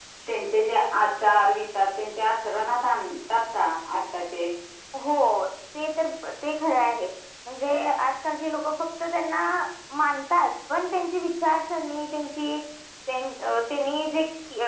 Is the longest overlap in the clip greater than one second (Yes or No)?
No